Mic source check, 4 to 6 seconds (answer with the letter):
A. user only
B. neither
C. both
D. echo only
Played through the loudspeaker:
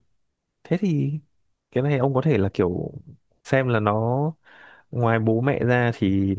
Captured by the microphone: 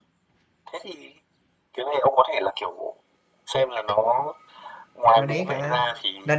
C